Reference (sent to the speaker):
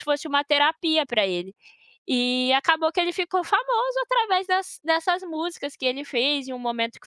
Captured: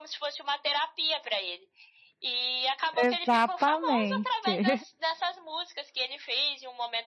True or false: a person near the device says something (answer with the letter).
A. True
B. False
A